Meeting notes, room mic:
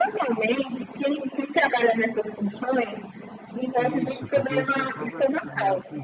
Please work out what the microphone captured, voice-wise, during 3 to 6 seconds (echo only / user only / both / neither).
both